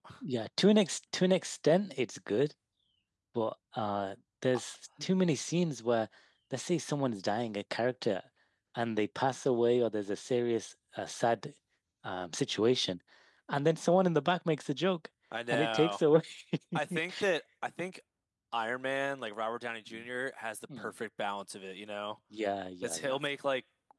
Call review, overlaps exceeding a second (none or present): none